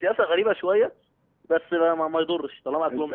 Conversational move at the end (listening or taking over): taking over